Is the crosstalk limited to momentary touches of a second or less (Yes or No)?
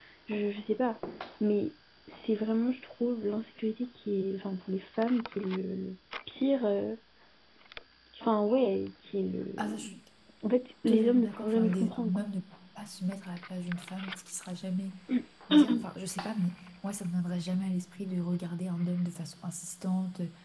No